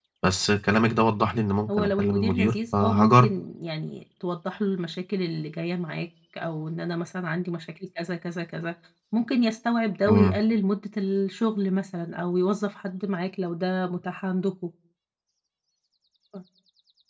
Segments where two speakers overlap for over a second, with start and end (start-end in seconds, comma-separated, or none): 1.8-3.3